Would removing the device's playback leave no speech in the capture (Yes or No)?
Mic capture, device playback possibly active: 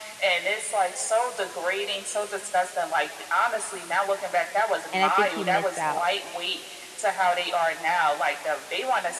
No